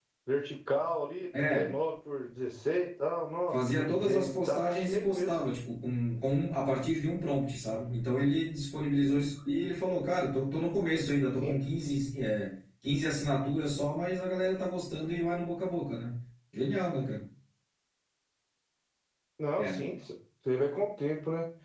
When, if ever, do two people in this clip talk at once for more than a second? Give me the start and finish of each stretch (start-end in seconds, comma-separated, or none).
3.5-5.4